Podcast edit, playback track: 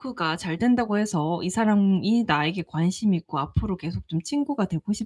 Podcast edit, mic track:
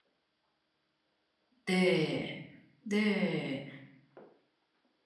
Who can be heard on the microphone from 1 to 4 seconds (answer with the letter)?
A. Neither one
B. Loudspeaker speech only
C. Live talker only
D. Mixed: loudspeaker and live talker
C